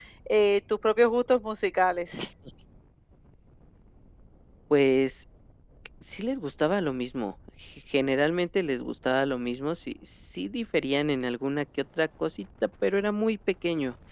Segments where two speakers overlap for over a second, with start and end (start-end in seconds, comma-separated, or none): none